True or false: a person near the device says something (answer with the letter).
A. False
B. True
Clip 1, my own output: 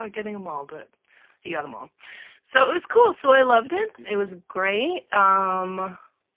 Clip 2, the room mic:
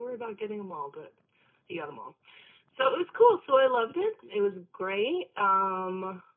A